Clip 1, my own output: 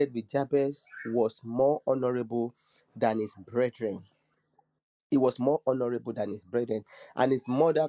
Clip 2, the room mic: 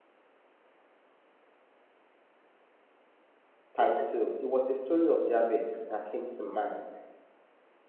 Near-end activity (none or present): present